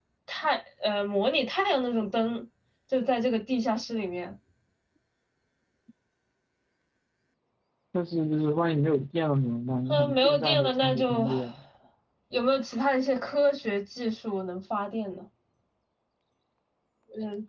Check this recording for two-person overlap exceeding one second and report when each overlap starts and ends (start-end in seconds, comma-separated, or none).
9.9-11.3